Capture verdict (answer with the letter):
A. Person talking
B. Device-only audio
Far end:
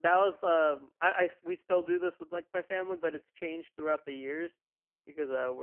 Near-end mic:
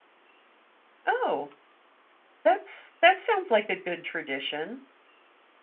A